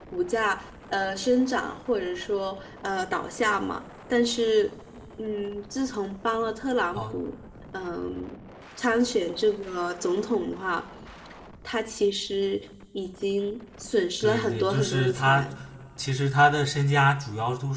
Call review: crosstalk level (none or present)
present